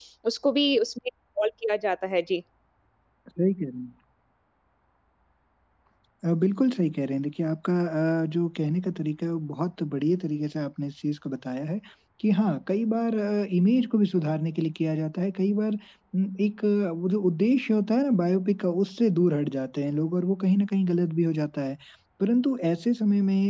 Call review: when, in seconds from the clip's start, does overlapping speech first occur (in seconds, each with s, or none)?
none